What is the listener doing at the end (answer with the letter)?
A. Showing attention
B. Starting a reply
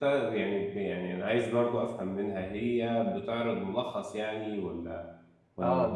B